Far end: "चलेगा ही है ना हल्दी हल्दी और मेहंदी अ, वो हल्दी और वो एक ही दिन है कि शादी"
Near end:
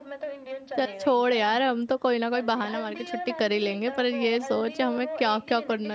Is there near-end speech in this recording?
Yes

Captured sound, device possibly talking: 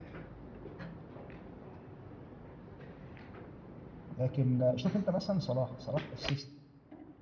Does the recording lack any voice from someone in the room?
No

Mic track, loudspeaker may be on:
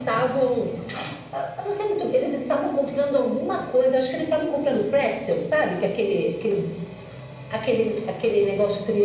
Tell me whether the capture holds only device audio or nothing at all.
Yes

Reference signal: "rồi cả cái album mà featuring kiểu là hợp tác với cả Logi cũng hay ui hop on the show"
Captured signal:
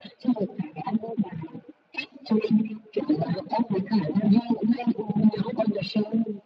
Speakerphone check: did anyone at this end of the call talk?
No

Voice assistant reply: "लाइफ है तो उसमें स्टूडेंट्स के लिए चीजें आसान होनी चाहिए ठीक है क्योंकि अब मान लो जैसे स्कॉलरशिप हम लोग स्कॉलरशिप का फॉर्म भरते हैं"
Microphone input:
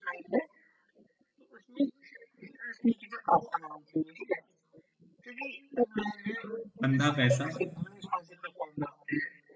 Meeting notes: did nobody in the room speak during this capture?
No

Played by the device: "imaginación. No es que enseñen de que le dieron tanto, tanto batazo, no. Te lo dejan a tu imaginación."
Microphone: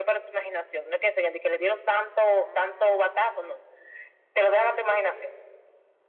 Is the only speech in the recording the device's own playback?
Yes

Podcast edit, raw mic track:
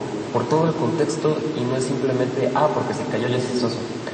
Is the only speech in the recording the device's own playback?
Yes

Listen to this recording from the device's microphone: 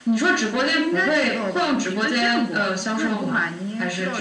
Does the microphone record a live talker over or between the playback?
No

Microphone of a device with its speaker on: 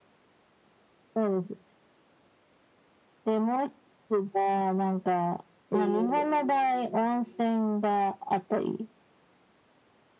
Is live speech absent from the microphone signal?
No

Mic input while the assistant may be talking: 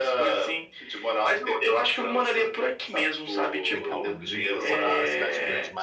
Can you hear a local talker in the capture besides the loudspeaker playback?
Yes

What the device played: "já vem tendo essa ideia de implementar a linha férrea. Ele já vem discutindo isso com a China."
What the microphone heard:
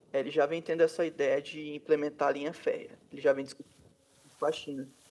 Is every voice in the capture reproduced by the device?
Yes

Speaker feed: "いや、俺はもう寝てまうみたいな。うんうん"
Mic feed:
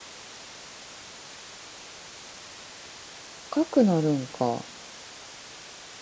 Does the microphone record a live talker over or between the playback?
Yes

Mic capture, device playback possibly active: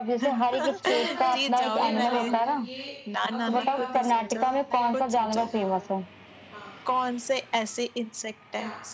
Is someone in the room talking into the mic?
Yes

